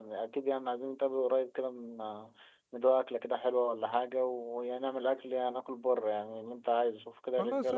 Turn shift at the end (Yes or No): Yes